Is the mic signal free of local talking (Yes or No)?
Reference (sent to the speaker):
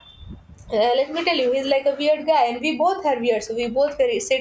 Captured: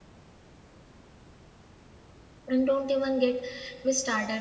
No